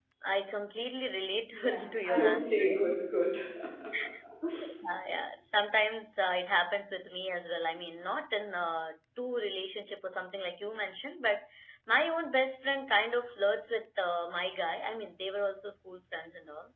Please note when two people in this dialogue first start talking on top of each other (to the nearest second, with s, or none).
2 s